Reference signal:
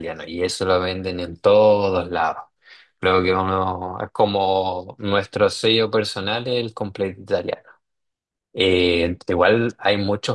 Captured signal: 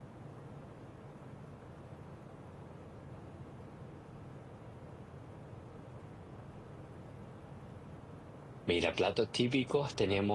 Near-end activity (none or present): present